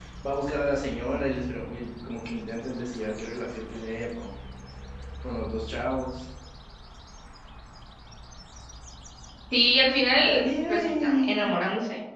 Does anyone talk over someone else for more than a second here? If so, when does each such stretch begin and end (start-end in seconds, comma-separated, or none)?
10.2-11.5